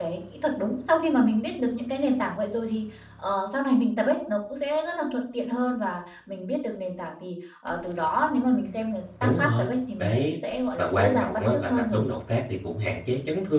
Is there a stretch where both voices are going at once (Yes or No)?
Yes